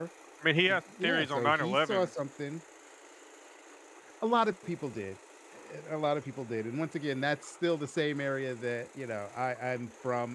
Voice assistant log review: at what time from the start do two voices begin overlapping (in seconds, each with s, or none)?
0.7 s